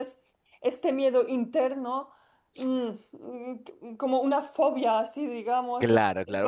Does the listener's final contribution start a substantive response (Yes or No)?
Yes